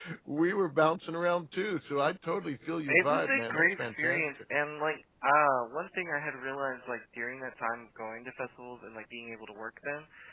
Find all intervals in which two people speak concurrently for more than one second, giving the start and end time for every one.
2.9-4.3

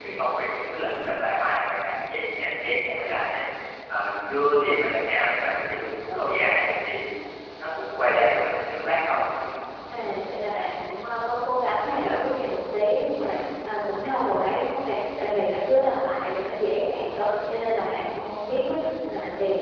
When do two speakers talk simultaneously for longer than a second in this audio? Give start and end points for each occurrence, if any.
none

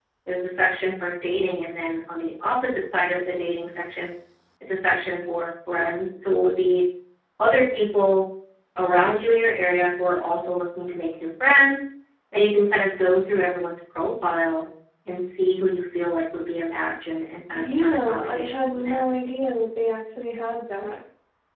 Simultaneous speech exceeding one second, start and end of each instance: 17.5-19.1

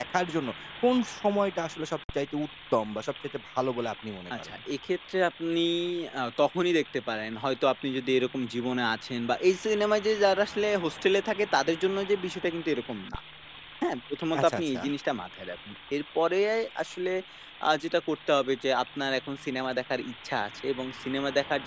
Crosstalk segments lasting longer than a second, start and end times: none

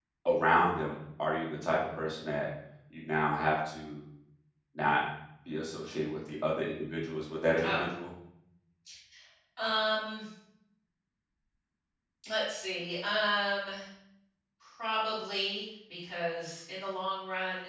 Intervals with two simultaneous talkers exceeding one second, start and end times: none

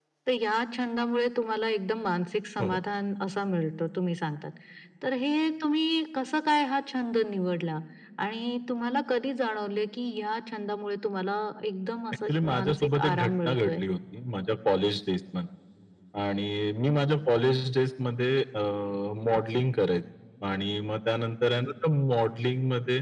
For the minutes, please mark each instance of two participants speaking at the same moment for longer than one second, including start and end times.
12.3-13.8

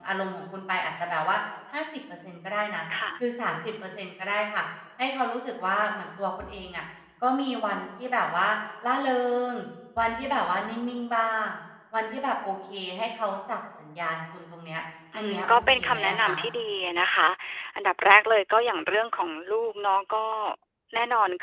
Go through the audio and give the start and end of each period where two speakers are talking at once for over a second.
15.1-16.3

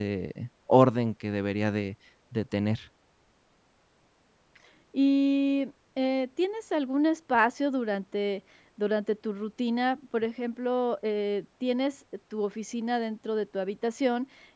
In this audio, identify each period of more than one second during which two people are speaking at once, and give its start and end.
none

